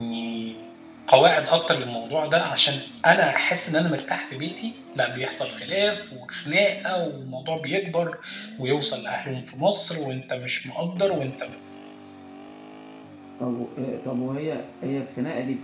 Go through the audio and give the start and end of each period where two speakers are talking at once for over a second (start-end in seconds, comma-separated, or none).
none